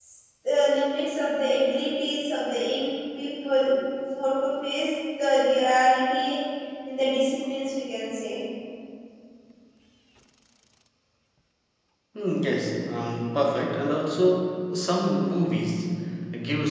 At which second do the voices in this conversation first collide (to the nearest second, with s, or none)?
none